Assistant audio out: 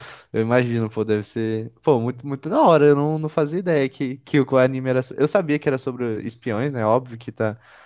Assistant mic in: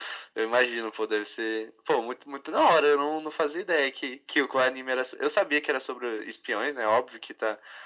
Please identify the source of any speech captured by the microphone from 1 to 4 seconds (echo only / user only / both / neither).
echo only